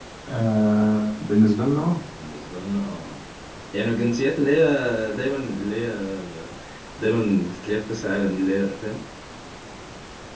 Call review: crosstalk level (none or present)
none